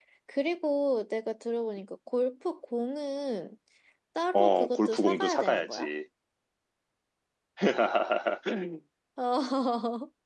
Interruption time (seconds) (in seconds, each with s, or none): 4.3 s